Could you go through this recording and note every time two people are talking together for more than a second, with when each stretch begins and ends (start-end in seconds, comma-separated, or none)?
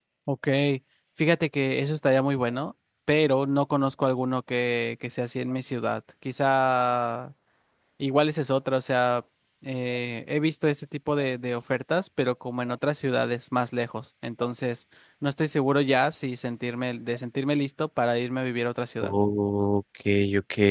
none